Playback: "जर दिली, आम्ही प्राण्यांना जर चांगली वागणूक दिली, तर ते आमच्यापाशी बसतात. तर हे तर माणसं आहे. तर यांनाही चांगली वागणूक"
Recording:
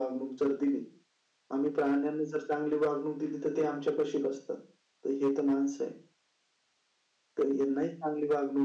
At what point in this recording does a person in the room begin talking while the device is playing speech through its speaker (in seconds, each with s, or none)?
none